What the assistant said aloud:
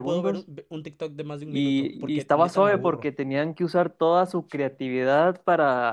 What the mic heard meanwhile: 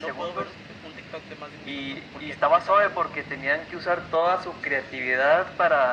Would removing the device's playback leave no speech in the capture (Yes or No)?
Yes